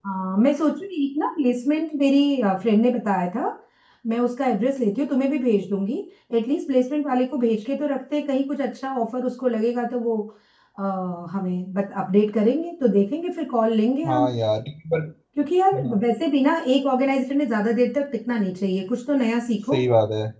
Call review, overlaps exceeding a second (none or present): none